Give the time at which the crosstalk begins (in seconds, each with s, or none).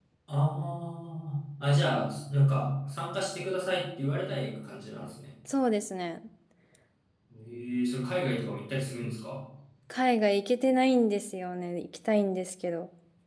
none